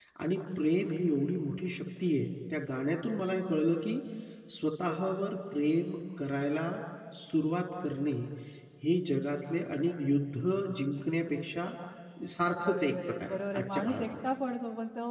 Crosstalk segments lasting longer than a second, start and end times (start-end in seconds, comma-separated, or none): 12.6-14.3